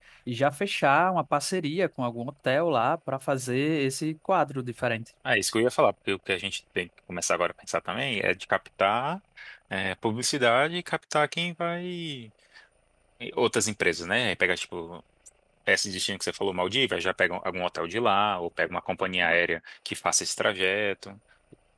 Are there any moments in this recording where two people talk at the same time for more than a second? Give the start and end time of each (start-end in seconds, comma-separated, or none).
none